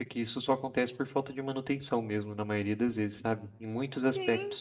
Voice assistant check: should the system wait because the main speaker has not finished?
No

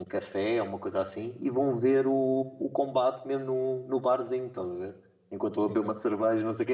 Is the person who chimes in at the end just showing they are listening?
Yes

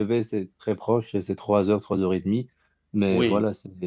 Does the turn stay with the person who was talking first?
Yes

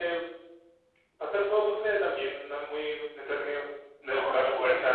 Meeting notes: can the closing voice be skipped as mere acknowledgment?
No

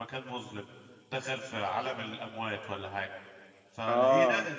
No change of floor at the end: Yes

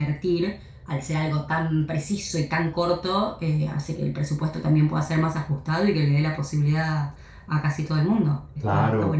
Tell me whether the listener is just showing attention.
No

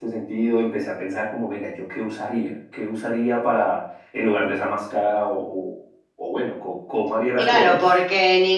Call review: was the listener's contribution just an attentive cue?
No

